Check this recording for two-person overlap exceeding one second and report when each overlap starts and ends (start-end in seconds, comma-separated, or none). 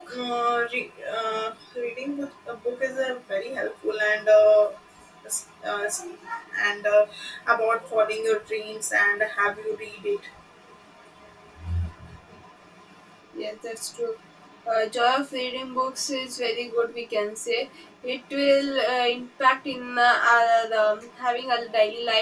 none